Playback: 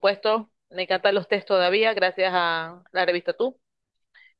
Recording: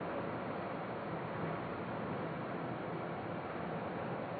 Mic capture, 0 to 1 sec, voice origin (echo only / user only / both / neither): neither